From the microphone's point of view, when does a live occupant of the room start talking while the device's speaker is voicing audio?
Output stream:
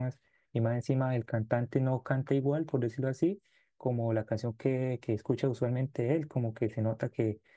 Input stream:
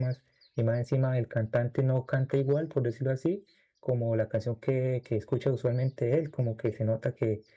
none

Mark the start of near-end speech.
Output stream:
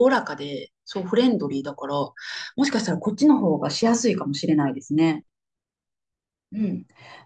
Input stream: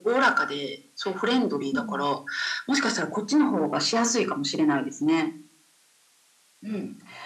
1.7 s

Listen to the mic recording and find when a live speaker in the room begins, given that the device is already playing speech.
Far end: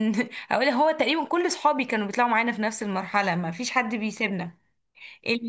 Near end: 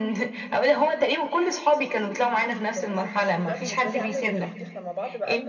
2.5 s

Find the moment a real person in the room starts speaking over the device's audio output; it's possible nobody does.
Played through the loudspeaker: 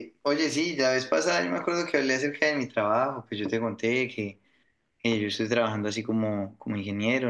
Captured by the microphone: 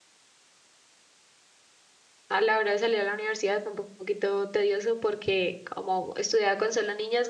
2.3 s

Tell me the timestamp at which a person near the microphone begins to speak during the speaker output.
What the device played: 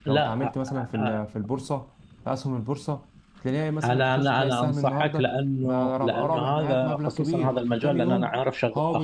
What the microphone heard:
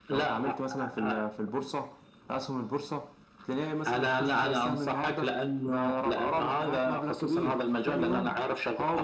none

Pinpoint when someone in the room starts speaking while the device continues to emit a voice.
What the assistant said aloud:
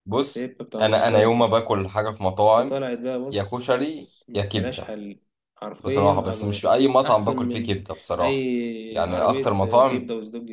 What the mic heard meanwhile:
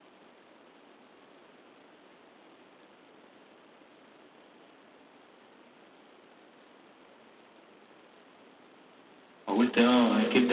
9.5 s

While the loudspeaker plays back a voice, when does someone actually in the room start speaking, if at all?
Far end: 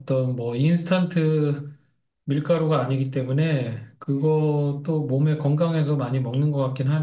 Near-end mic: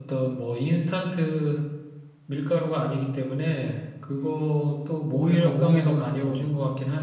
5.1 s

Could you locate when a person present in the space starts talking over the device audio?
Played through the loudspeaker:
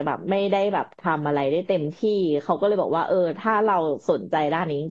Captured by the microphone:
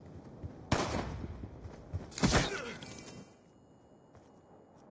none

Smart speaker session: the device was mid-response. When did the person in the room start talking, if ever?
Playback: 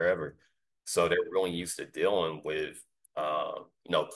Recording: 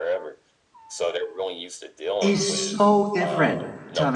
2.2 s

